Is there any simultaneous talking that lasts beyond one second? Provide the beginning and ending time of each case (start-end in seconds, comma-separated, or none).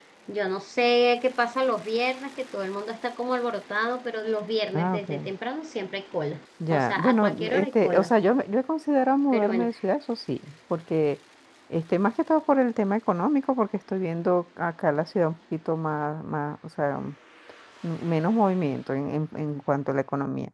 6.7-8.1